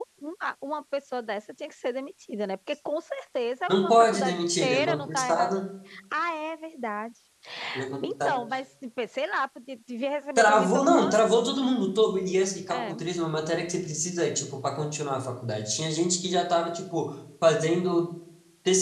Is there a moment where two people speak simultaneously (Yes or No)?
Yes